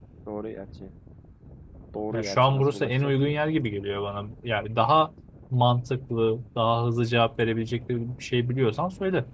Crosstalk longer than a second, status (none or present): present